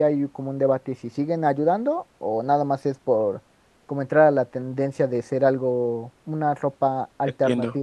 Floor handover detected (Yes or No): Yes